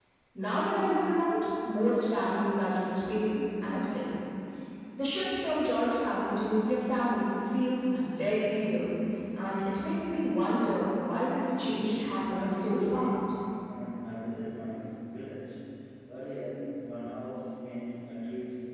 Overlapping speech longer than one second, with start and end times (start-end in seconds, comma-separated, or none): 11.6-13.3